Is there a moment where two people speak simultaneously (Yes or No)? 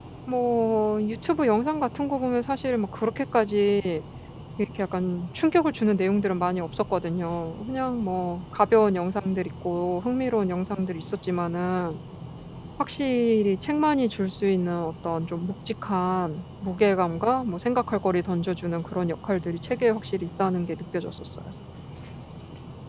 No